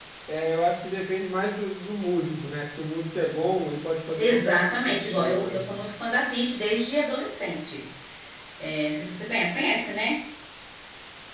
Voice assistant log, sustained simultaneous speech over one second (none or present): present